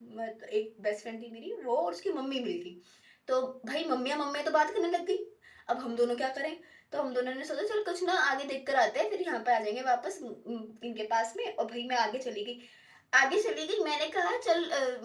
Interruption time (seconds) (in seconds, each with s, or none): none